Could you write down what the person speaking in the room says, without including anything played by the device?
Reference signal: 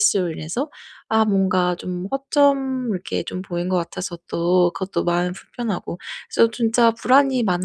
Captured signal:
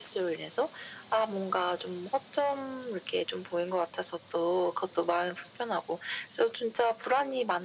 none

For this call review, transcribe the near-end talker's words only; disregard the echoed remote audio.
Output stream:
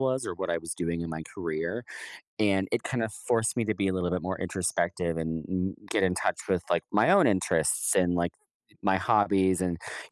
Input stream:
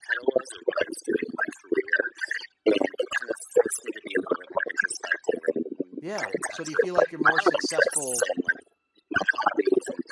Yeah. So do you feel like you're more successful

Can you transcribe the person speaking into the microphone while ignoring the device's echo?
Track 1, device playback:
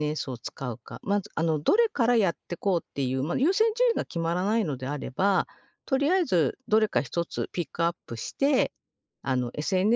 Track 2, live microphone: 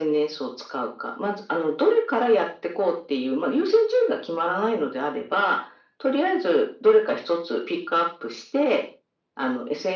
none

